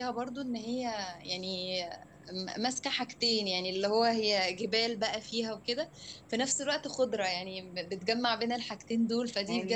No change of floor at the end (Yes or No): No